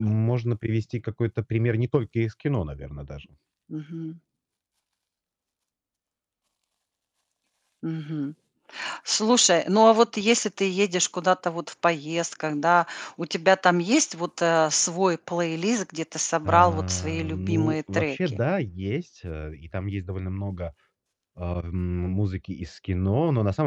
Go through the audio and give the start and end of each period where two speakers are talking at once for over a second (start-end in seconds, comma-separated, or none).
16.4-18.4